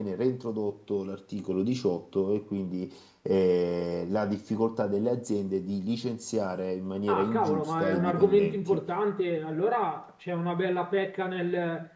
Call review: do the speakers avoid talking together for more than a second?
No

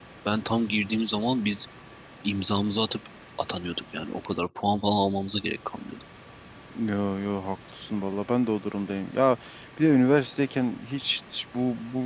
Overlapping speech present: No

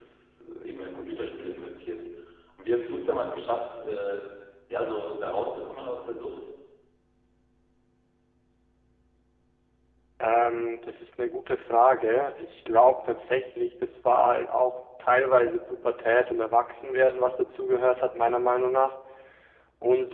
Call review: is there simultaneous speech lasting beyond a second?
No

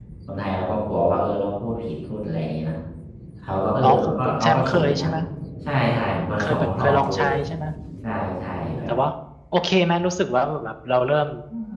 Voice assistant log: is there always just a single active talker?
No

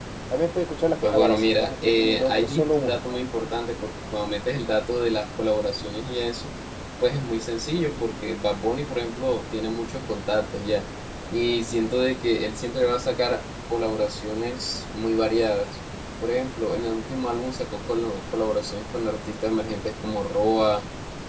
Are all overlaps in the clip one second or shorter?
No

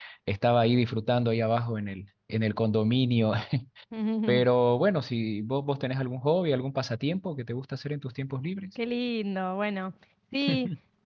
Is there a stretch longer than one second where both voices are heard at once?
No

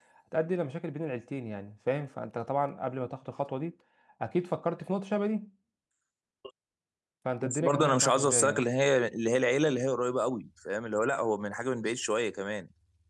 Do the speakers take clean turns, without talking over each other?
No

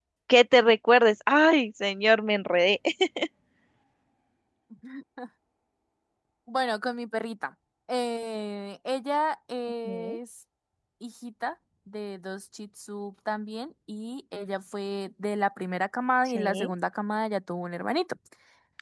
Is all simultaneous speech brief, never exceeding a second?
Yes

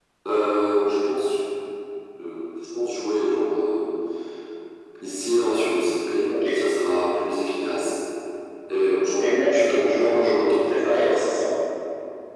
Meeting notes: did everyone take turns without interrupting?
No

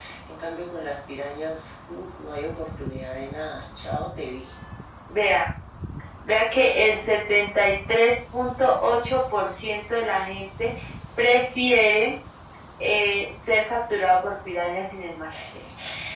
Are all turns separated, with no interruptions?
Yes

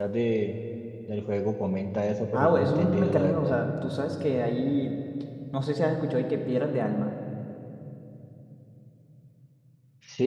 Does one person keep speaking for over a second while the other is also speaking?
Yes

